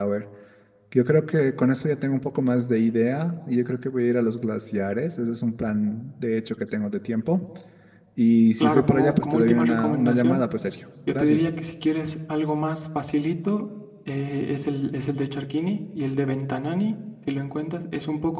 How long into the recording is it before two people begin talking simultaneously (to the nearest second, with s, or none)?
9 s